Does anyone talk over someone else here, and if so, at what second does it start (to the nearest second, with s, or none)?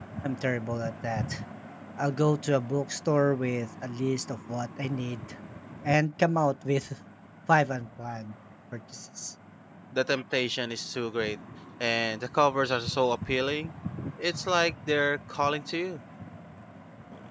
none